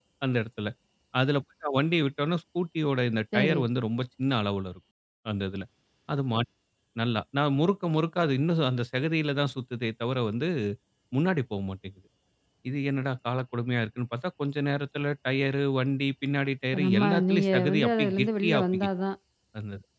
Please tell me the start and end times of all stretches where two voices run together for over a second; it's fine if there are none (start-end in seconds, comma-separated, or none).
16.7-18.9